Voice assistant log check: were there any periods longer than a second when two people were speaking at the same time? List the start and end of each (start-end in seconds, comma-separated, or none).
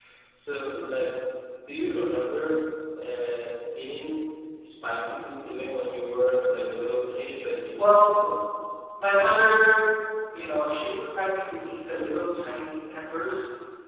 none